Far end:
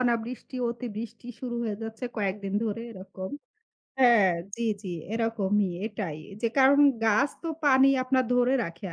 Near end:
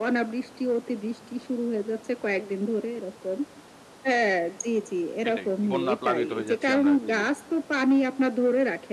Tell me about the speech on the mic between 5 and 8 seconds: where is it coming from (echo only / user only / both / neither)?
both